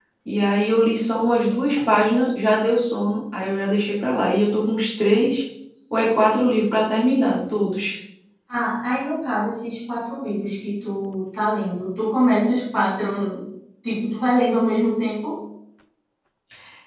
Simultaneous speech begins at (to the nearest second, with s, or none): none